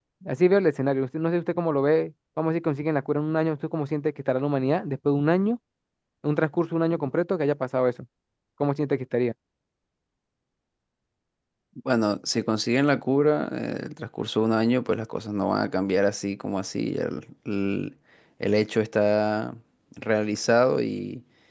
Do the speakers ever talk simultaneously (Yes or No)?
No